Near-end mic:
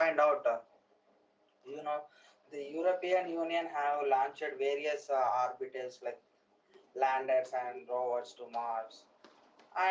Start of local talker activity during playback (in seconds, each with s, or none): none